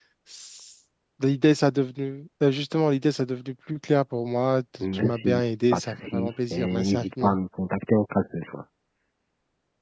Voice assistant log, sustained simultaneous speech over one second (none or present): present